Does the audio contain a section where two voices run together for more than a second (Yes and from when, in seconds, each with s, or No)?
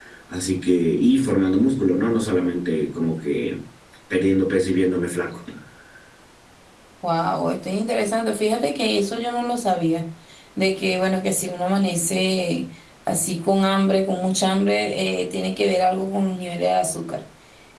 No